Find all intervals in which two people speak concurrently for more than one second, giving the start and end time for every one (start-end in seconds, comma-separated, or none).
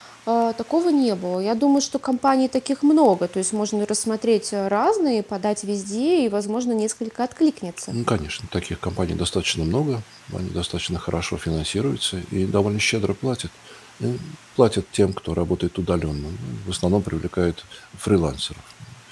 none